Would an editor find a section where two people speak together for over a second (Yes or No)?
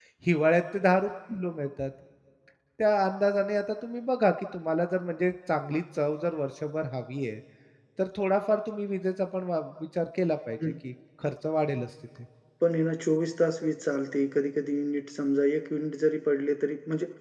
No